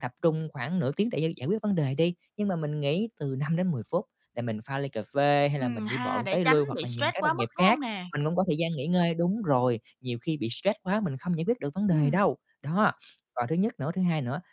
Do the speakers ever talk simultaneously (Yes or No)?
Yes